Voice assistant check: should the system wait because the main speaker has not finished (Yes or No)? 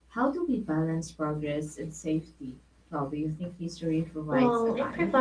No